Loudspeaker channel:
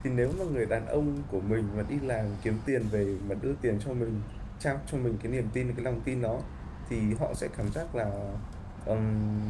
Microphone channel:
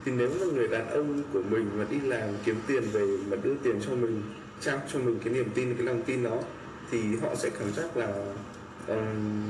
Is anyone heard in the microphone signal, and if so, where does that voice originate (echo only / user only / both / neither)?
echo only